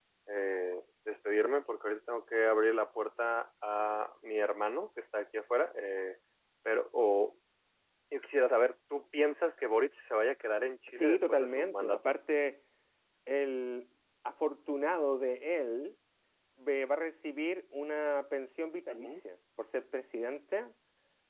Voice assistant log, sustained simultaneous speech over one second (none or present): present